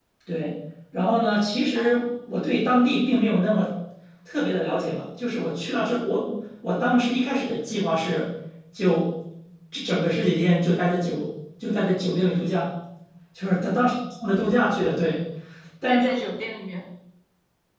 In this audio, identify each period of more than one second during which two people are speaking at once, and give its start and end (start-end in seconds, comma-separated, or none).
none